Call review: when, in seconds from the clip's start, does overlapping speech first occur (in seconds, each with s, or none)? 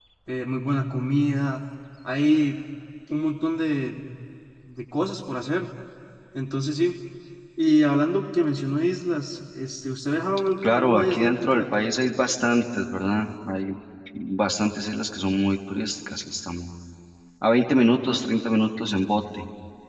10.6 s